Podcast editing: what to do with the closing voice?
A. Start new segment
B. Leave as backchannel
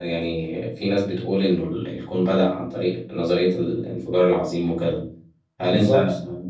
B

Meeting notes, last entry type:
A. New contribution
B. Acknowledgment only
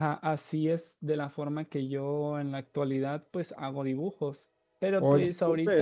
B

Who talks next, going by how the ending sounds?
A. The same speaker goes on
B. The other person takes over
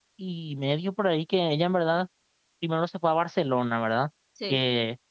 A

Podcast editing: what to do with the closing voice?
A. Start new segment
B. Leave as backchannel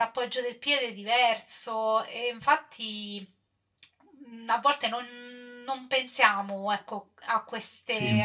B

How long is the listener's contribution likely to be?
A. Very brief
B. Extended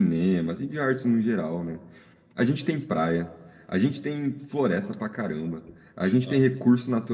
A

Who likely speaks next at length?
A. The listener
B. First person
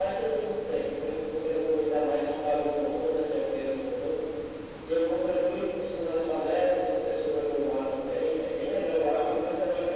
B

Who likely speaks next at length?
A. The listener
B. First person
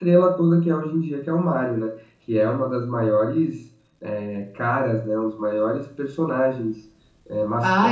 A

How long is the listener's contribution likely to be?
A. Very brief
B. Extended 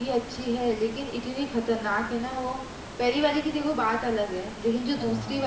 A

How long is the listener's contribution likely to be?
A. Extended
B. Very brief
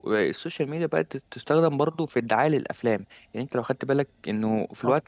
B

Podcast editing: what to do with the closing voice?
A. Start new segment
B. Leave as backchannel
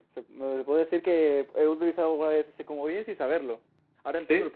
A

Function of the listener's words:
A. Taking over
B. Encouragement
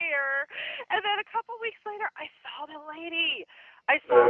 B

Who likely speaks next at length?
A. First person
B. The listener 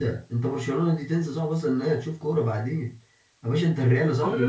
B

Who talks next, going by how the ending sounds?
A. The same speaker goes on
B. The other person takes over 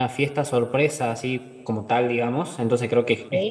A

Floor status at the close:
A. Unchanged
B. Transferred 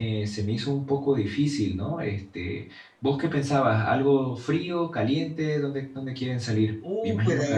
B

